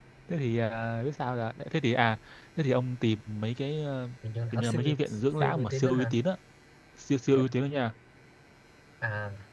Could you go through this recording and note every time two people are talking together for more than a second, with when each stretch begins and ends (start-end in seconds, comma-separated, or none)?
4.5-6.2